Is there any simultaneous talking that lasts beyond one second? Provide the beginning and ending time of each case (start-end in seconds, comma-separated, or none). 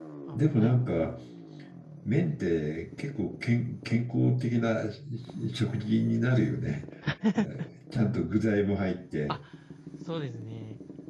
none